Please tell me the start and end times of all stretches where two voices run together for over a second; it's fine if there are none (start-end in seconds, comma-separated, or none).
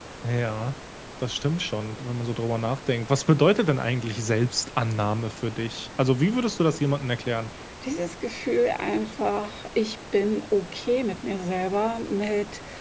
none